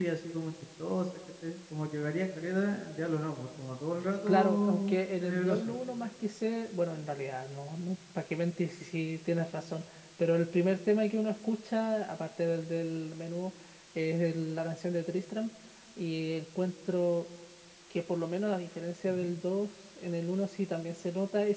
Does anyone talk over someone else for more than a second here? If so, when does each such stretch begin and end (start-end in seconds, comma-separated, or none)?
4.3-5.7